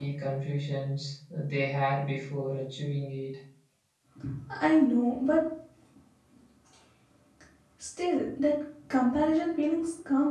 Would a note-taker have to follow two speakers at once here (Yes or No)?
No